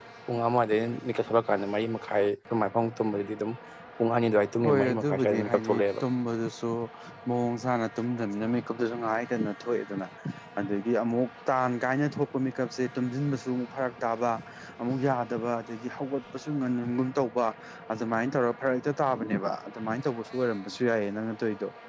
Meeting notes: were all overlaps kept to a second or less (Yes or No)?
No